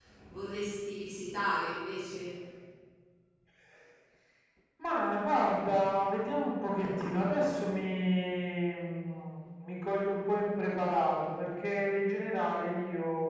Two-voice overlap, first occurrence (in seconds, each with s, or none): none